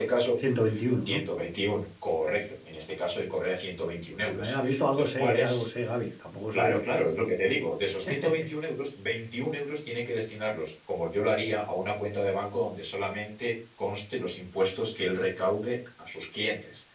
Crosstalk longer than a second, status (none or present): present